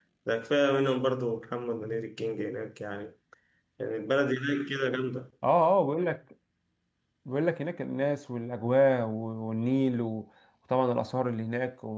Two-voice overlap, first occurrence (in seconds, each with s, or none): none